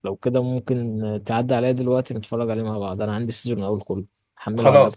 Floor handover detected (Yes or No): Yes